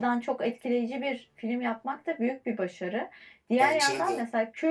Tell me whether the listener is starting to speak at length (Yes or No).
No